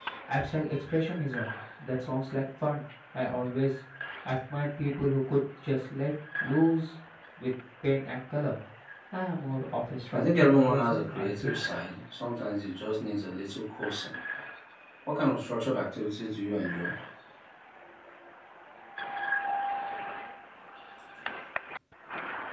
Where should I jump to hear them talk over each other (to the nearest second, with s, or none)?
10 s